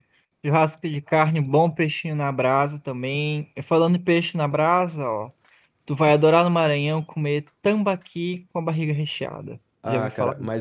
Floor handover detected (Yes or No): Yes